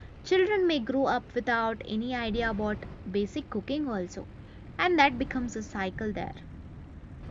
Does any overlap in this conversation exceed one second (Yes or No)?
No